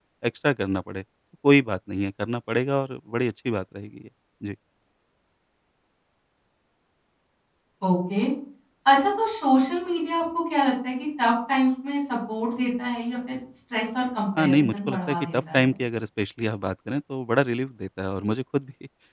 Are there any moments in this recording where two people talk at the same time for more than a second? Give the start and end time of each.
14.4-15.7

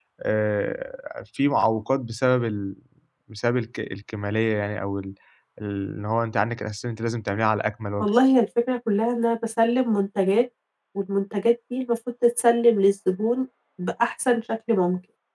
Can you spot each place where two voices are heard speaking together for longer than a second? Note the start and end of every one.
none

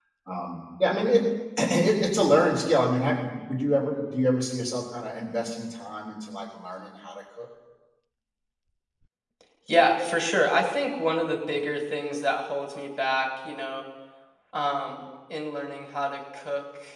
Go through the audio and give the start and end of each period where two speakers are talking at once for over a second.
none

